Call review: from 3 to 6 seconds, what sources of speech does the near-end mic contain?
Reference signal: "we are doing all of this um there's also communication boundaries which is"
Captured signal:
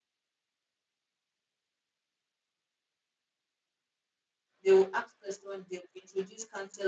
user only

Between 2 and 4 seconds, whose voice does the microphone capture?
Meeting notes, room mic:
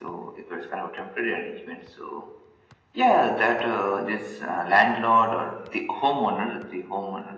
echo only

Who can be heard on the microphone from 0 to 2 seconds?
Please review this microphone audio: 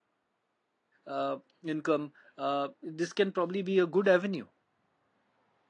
user only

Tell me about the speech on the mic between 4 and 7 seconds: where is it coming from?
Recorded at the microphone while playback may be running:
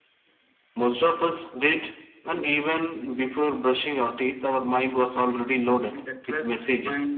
both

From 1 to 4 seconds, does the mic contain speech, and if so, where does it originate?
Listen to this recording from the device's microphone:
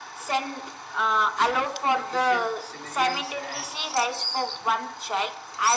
both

